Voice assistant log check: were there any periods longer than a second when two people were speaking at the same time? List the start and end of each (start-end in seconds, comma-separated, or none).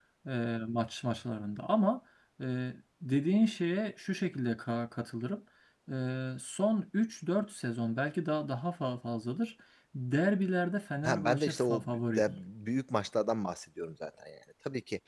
11.0-12.3